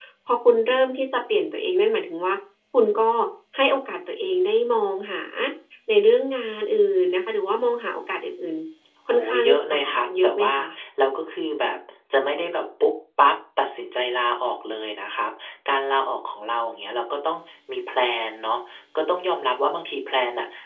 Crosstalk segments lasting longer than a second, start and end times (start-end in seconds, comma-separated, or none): 9.1-10.5